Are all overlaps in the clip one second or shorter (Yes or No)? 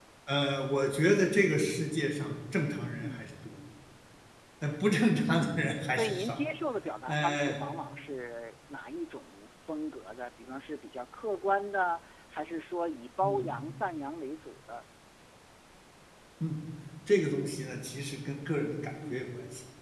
Yes